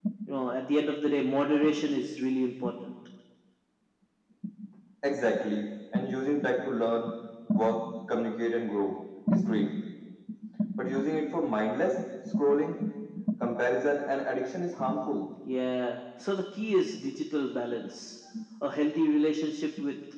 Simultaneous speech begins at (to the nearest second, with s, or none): none